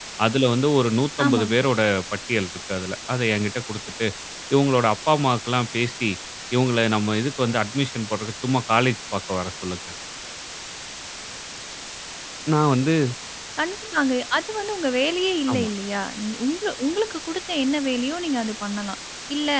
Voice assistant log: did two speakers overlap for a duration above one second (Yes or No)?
No